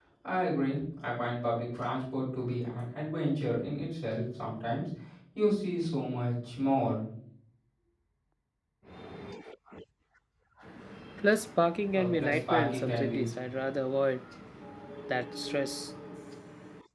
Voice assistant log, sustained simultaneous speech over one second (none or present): present